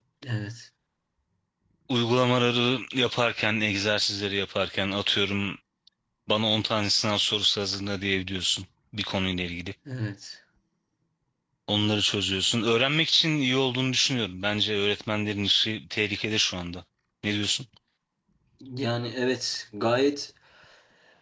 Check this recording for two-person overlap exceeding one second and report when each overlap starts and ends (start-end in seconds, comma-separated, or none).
none